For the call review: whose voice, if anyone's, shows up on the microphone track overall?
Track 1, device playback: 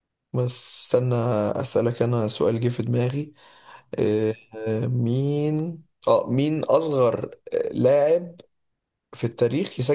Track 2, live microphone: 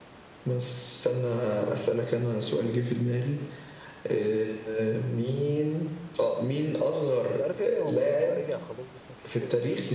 both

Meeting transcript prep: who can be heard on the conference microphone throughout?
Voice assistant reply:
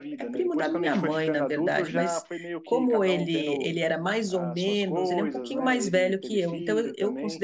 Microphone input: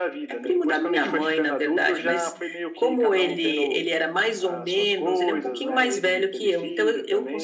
echo only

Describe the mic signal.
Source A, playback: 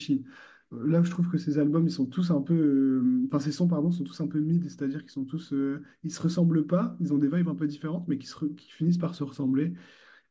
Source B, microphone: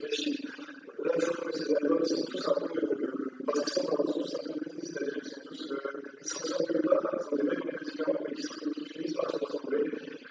echo only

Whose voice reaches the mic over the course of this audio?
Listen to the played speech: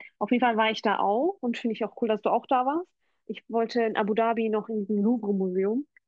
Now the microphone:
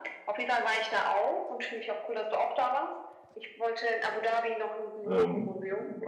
both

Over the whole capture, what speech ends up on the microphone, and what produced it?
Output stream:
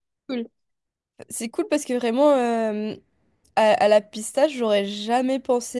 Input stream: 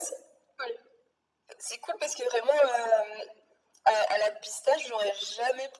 echo only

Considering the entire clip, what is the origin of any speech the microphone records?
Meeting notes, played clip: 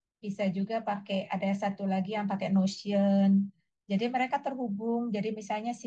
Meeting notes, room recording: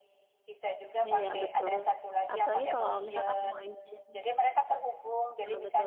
both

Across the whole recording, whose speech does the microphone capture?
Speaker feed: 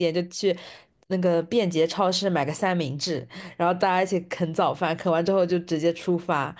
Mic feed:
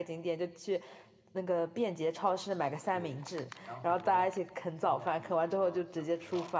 both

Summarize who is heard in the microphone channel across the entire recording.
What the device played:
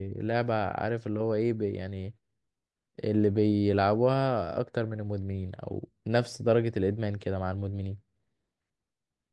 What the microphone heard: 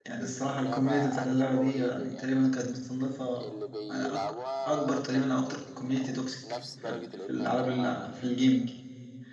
both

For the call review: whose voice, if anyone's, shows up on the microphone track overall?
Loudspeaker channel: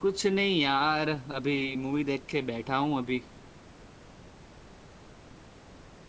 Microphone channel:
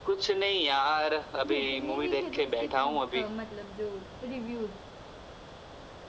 both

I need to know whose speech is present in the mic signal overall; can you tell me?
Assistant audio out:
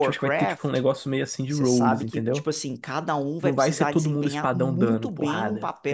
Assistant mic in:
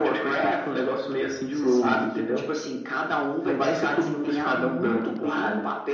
echo only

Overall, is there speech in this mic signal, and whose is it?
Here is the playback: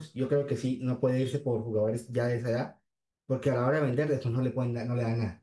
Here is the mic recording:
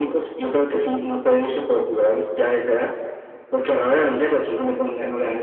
echo only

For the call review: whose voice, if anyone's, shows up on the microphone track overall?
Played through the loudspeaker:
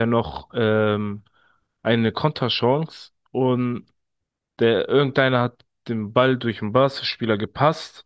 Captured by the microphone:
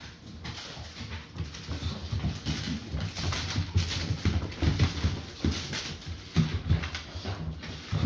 neither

